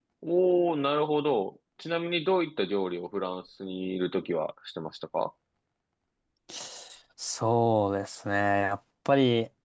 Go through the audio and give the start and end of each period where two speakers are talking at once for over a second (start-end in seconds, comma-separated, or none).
none